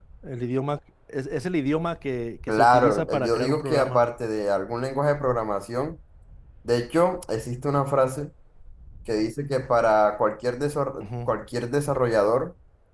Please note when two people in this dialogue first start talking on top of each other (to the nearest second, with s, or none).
2 s